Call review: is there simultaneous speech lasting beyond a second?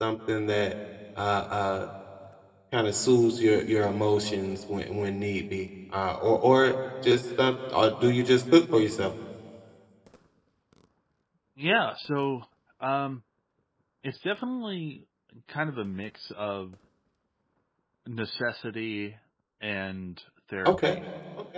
No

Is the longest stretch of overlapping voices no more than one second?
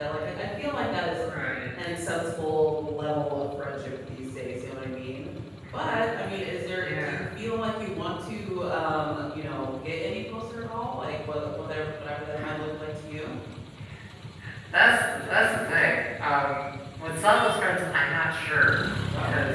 Yes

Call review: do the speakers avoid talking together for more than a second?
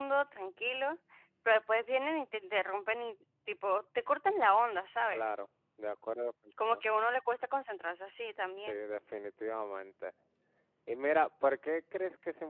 Yes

